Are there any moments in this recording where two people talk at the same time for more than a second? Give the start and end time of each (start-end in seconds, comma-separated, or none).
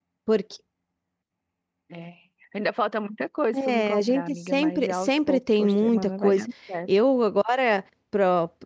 3.5-6.4